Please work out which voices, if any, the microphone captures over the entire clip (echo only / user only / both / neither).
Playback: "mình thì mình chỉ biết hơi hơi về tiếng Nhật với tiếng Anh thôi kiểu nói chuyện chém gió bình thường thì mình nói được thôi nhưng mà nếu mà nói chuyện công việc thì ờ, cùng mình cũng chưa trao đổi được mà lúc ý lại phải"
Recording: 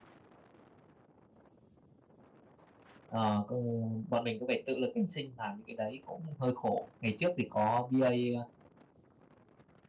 user only